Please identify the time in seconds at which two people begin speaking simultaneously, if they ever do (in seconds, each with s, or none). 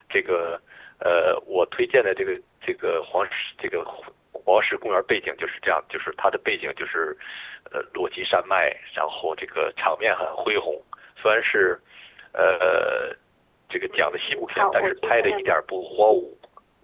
13.9 s